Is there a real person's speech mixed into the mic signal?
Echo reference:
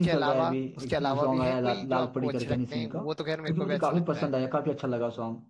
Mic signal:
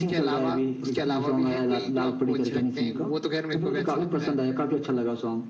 No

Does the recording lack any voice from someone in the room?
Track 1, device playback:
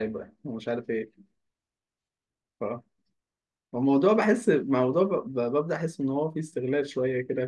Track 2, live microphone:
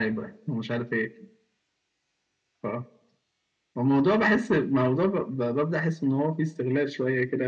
Yes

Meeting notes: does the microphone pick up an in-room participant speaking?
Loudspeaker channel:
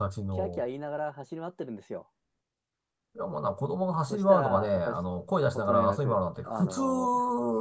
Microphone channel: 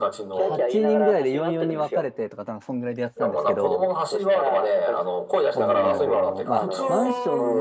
Yes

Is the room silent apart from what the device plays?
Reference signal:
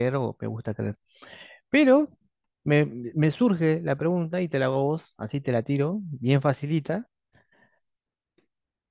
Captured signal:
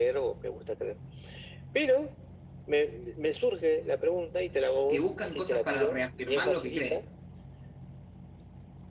No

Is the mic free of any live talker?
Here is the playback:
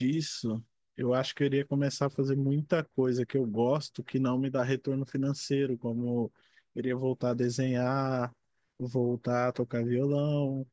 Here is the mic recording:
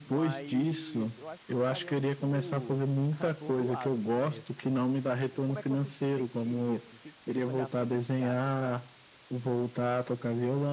No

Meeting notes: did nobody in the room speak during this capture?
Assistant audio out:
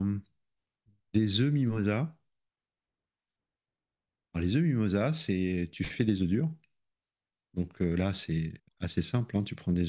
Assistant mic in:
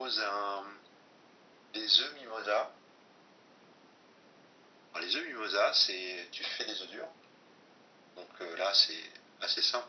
Yes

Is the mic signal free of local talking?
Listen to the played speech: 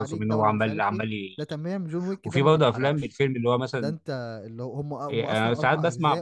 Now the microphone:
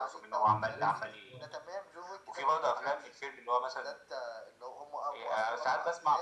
No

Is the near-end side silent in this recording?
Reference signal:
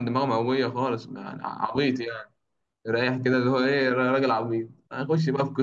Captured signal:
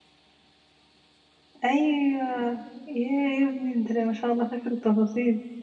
No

